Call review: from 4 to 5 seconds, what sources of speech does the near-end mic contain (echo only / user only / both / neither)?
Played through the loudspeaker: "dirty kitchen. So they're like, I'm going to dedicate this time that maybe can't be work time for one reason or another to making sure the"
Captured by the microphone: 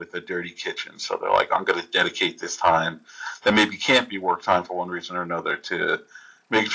echo only